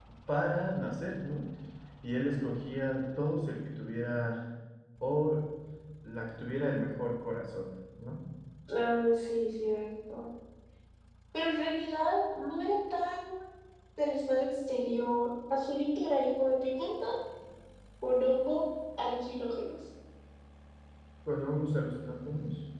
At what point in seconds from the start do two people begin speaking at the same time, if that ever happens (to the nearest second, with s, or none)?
none